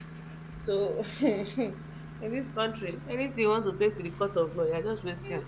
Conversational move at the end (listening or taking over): taking over